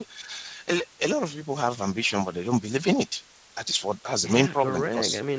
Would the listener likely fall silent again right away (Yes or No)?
No